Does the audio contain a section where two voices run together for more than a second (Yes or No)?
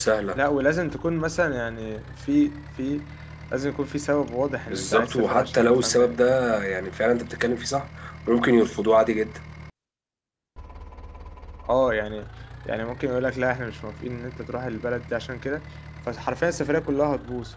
Yes